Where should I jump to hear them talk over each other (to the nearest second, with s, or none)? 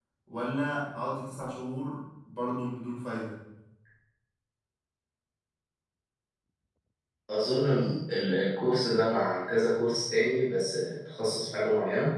none